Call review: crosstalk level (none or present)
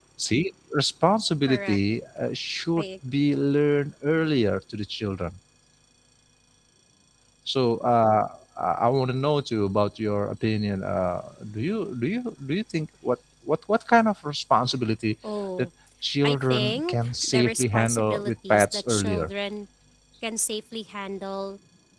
present